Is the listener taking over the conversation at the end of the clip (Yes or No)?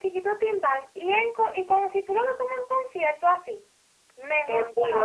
Yes